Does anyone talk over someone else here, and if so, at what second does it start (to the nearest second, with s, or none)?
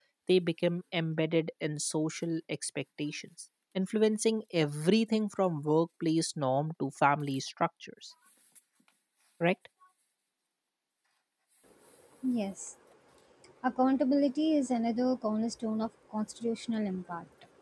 none